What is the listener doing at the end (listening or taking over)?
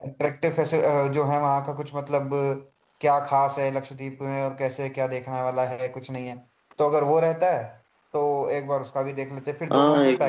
taking over